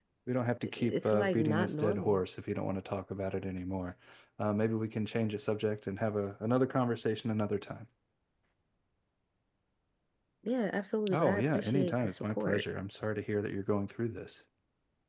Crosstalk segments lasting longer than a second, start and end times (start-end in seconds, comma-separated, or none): 0.6-2.2, 11.1-12.6